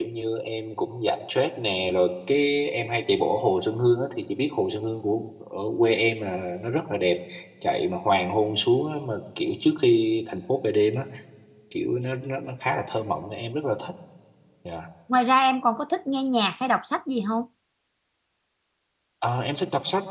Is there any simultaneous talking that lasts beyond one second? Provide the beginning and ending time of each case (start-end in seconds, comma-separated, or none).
none